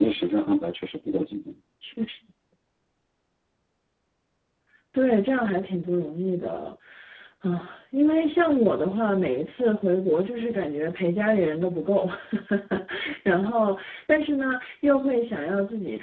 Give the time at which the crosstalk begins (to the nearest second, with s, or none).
none